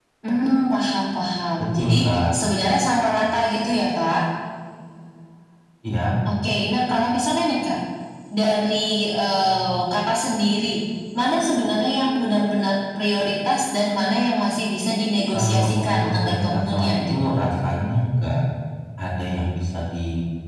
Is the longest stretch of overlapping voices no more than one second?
No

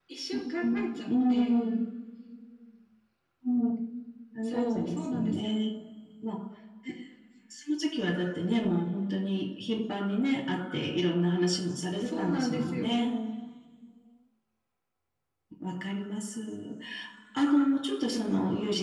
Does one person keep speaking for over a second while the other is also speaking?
Yes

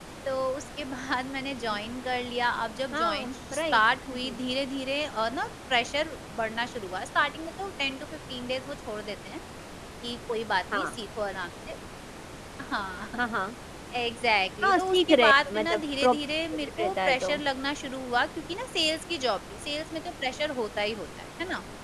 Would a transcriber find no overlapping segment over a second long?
No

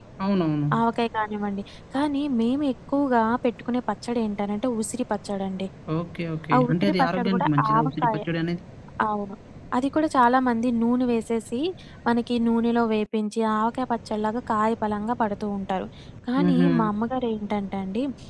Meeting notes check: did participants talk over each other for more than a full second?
Yes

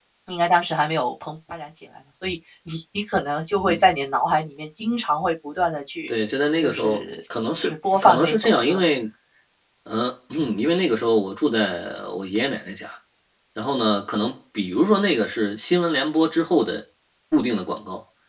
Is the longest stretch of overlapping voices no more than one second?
No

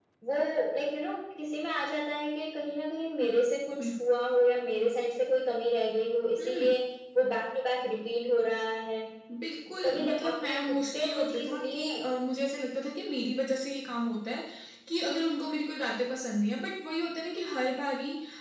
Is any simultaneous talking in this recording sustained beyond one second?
Yes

